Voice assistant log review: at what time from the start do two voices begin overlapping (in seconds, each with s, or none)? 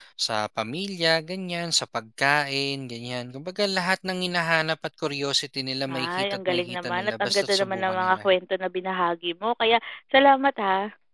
5.9 s